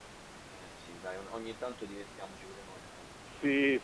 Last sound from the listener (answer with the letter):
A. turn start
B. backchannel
A